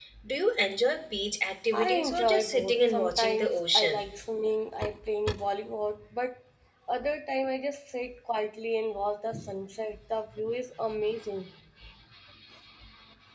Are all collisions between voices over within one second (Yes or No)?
No